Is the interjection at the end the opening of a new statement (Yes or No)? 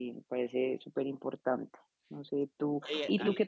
No